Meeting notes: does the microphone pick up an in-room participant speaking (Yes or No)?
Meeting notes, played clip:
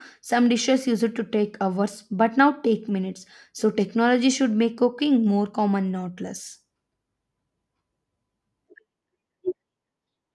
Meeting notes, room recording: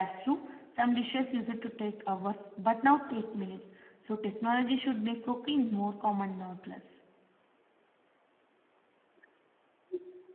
No